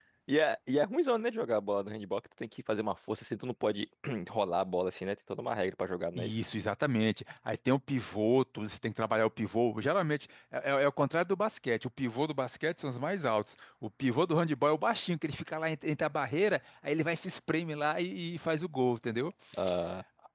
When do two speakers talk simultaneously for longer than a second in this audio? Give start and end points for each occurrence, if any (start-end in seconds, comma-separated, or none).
none